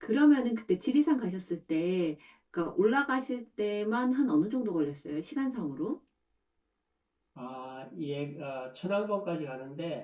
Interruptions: none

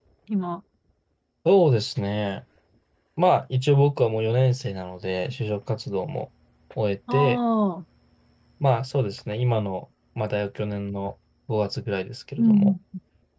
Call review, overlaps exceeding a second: none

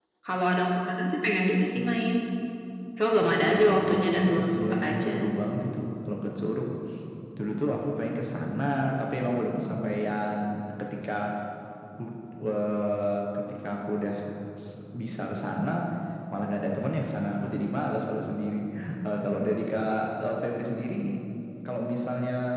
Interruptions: present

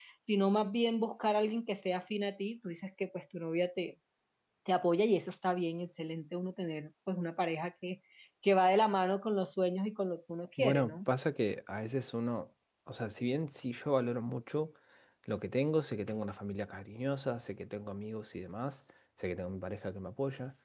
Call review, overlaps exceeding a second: none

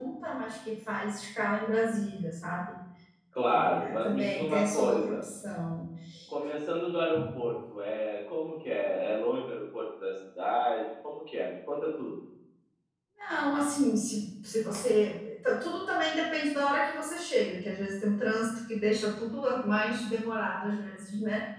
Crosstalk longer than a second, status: present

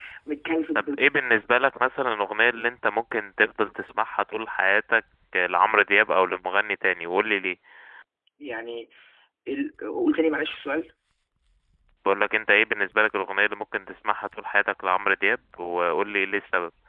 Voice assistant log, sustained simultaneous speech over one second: none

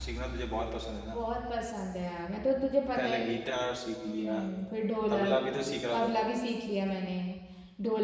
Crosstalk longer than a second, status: none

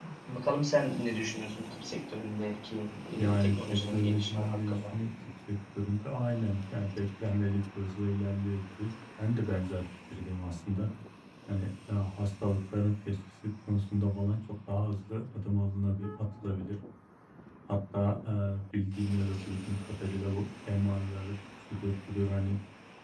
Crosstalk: present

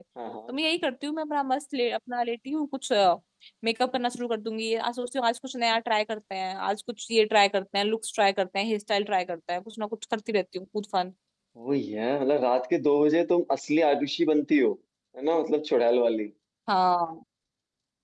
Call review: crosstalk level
none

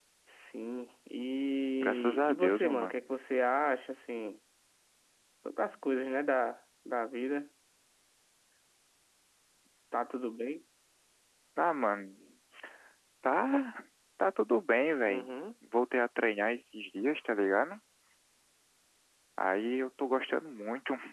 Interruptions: present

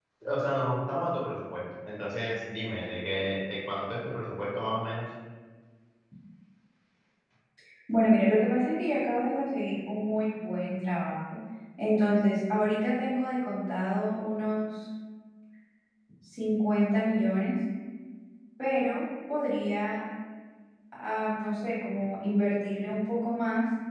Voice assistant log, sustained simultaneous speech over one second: none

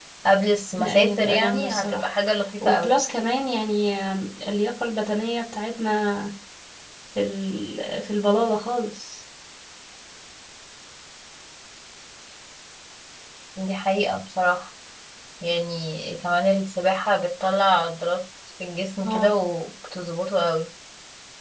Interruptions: present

